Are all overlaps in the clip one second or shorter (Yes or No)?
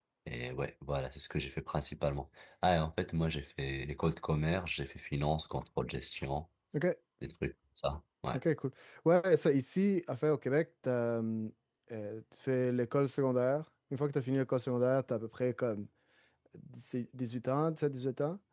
Yes